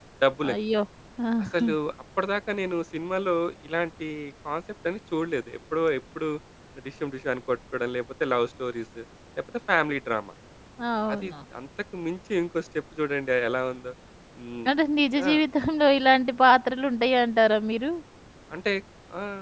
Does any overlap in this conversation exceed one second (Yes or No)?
No